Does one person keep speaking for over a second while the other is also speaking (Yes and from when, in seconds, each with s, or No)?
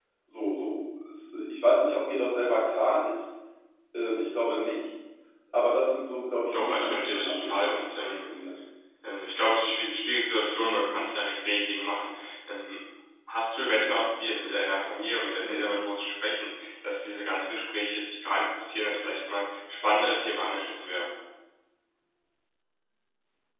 Yes, from 6.5 s